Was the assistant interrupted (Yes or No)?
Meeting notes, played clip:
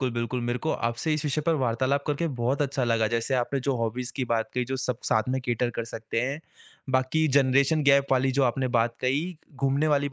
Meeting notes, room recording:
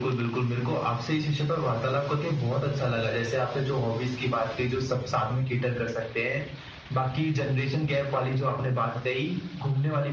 No